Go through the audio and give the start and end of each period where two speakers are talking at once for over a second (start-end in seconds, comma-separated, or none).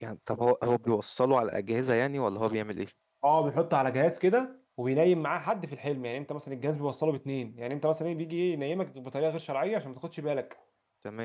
none